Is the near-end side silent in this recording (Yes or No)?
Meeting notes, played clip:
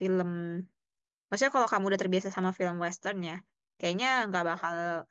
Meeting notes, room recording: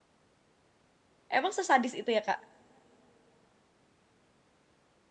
No